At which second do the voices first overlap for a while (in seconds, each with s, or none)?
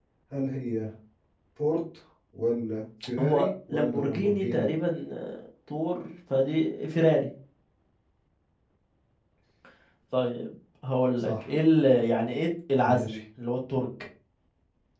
3.2 s